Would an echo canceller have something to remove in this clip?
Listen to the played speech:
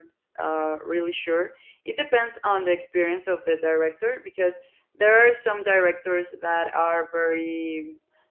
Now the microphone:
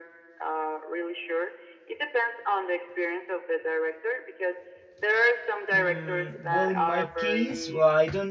Yes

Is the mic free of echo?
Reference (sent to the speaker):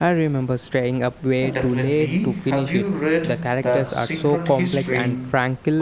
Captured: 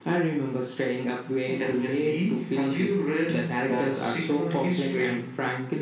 No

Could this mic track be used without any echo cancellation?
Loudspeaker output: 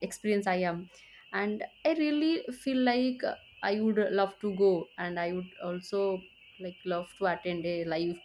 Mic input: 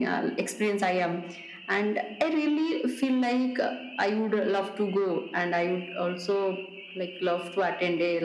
No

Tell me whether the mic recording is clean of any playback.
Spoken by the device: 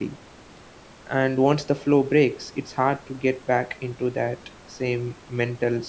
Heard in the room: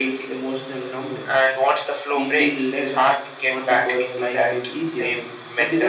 No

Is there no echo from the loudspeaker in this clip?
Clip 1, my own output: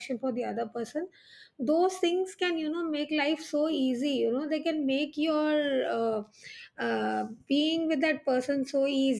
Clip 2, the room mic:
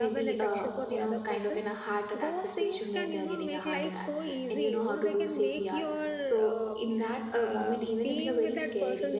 No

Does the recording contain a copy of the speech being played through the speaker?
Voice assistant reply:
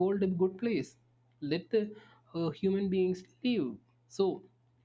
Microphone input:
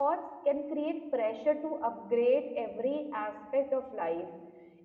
No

